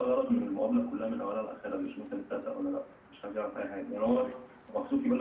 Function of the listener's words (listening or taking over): listening